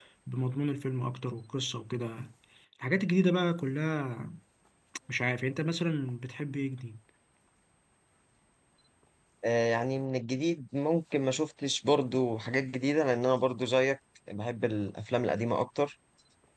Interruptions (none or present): none